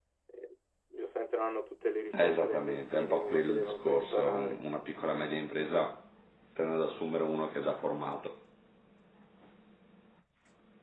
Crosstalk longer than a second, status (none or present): present